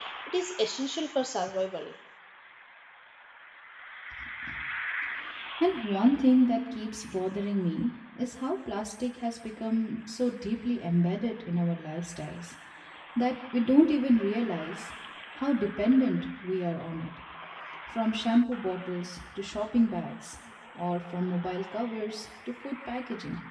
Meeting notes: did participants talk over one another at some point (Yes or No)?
No